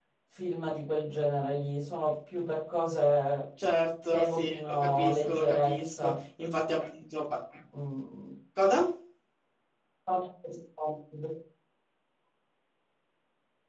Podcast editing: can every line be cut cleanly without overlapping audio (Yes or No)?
No